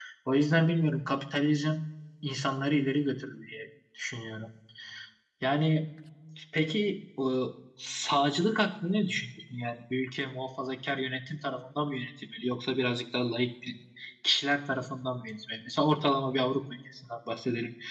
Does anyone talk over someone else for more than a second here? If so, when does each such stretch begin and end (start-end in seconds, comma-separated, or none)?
none